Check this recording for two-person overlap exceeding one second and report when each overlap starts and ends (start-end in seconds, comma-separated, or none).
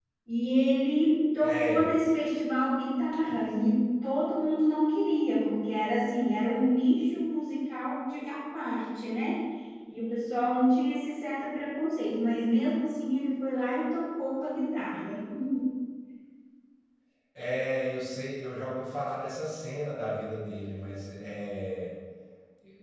none